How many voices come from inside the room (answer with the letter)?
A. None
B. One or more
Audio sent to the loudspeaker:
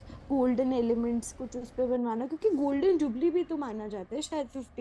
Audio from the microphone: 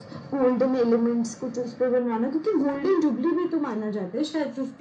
A